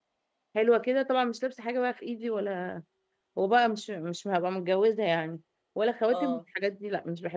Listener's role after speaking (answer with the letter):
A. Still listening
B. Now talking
A